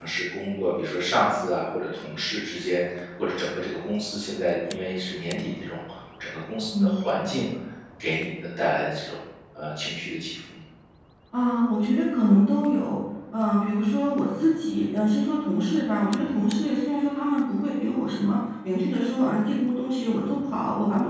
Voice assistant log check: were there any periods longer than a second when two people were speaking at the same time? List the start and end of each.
none

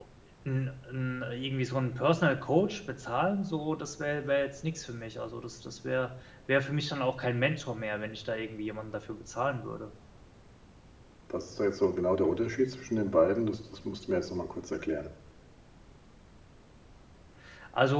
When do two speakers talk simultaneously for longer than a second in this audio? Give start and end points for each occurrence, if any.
none

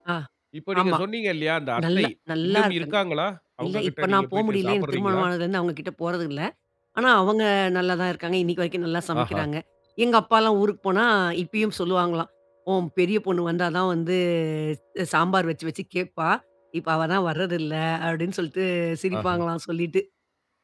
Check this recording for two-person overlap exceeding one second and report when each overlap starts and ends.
3.6-5.2

